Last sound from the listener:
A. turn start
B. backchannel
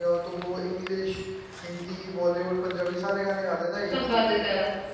A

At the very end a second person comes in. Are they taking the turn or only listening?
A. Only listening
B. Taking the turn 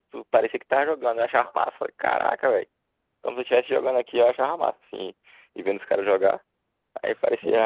A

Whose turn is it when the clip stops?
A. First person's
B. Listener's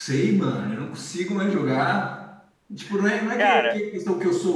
A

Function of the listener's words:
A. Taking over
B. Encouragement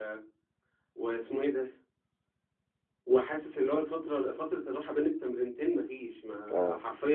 B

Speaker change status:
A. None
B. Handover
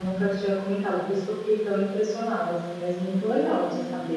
B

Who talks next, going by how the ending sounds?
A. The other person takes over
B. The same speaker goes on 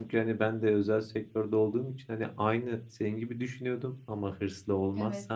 B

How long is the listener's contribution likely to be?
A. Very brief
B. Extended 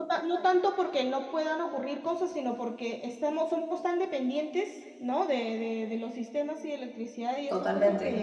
A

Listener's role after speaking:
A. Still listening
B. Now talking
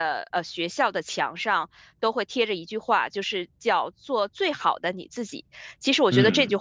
A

